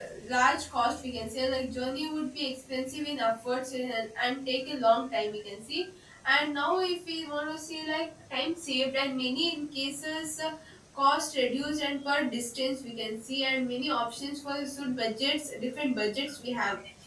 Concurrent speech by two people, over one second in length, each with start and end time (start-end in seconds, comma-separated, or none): none